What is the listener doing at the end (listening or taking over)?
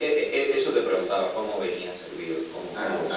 taking over